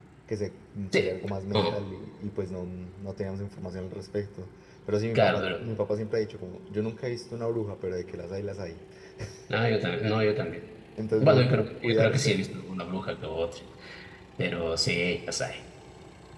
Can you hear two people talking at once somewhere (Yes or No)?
Yes